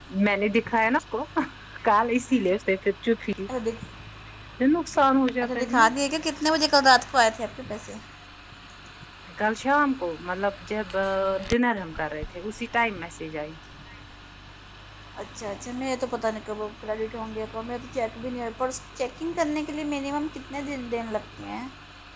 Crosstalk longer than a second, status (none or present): none